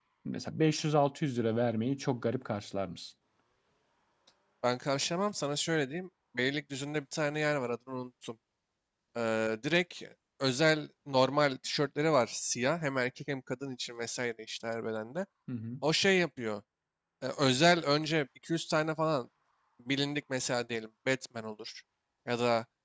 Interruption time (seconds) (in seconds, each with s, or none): none